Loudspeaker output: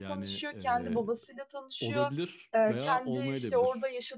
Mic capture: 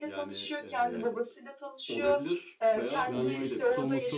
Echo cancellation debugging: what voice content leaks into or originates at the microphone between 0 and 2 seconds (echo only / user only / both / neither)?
echo only